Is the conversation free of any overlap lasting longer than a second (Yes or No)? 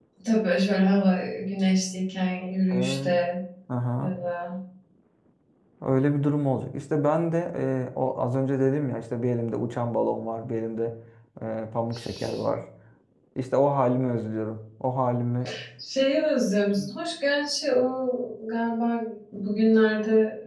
Yes